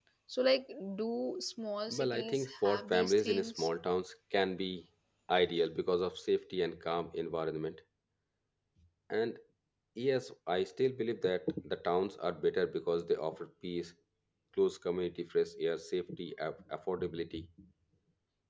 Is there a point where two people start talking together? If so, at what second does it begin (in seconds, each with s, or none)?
1.9 s